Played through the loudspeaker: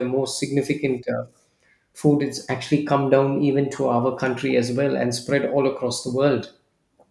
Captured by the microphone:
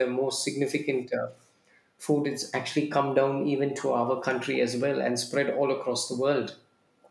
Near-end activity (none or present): none